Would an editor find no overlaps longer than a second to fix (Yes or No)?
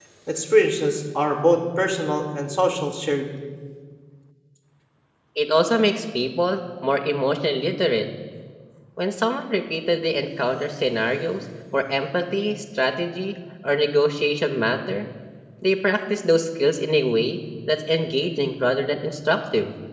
Yes